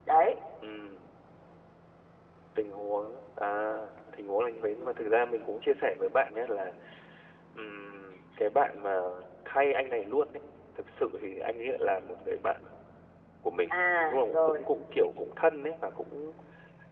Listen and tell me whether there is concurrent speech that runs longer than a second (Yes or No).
No